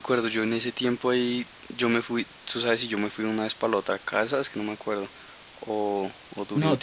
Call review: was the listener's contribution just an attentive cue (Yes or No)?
No